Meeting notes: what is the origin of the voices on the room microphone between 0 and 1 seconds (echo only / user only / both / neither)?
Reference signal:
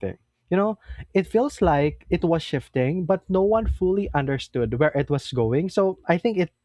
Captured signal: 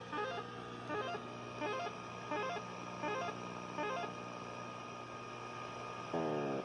neither